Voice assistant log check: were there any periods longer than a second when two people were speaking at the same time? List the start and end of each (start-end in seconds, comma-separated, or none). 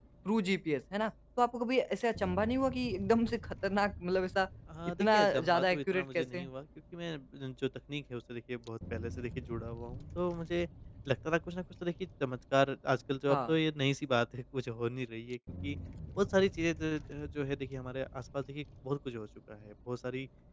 5.0-6.5